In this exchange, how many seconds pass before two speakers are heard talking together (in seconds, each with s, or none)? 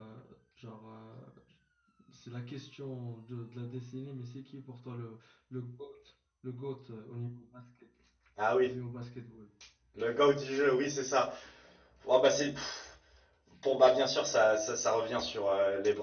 none